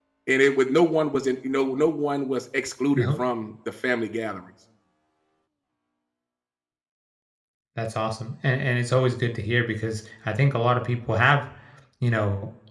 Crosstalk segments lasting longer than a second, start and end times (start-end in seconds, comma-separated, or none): none